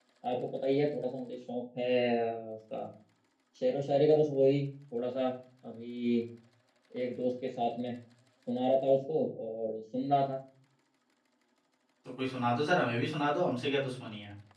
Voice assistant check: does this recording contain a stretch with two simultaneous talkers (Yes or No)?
No